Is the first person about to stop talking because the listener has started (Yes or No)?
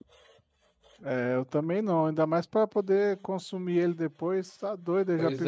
Yes